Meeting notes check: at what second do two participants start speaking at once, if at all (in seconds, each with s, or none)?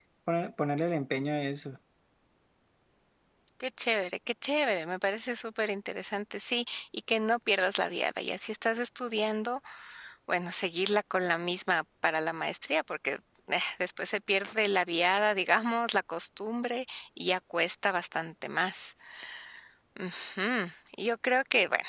none